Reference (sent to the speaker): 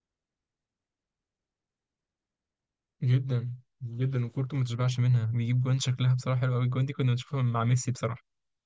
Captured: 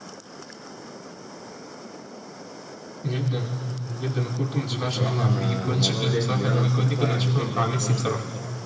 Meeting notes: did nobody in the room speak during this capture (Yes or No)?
No